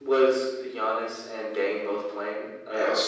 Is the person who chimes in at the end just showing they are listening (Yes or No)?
No